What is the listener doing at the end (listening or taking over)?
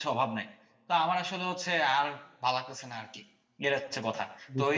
listening